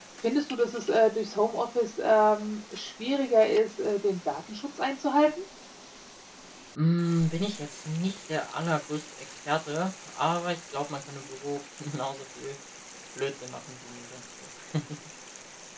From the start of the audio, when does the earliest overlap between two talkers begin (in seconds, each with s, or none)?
none